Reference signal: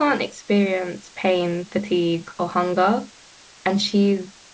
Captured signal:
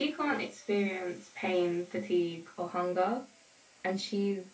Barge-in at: none

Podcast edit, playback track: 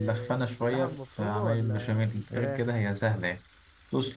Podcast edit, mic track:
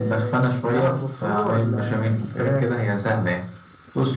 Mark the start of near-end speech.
none

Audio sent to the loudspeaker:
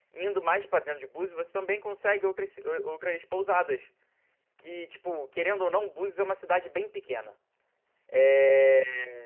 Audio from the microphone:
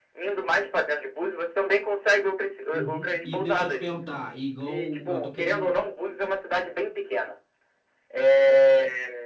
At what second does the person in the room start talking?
2.7 s

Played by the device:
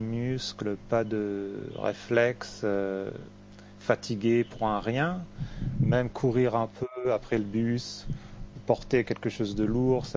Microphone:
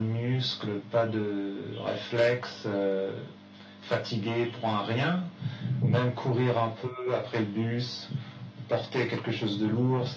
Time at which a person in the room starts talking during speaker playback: none

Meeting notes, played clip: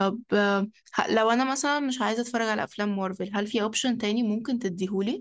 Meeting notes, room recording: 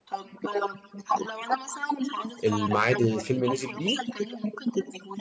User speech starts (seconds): 2.4 s

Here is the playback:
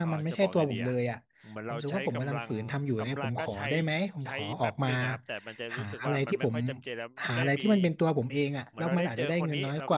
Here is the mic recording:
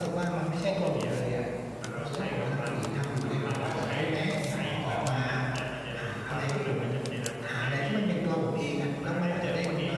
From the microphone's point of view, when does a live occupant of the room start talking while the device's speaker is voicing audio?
none

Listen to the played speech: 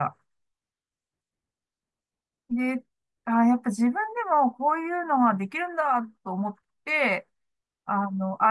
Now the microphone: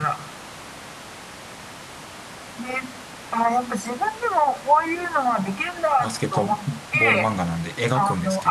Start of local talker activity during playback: 6.0 s

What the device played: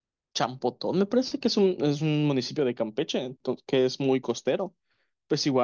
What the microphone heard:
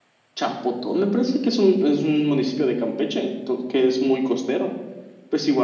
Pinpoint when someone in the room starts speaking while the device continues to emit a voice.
none

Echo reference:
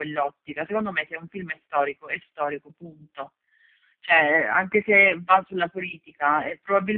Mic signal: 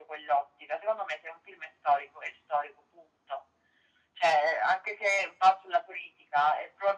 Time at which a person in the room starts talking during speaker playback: none

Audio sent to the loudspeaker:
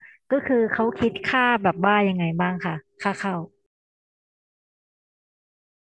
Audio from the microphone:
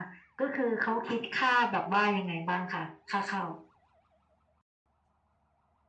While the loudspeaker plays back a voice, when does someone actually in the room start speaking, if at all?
none

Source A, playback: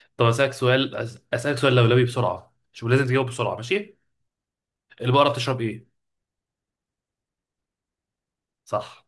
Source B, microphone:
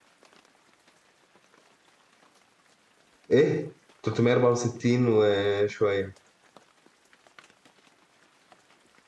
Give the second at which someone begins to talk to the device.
3.3 s

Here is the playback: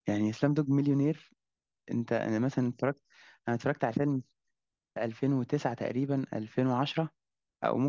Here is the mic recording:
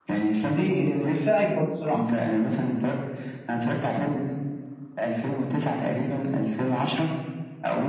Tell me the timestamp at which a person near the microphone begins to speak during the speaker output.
0.4 s

